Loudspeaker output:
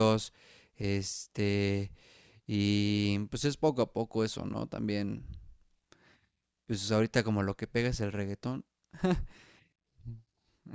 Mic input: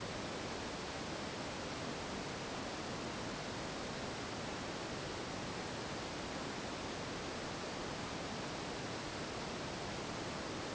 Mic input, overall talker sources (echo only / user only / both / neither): neither